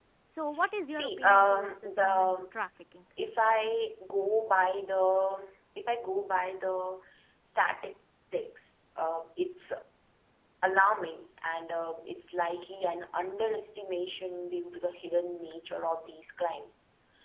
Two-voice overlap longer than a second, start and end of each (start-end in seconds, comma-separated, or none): 0.9-2.4